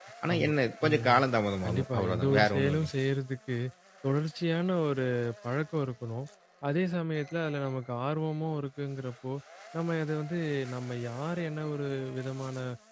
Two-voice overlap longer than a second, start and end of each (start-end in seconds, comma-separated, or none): 1.6-2.9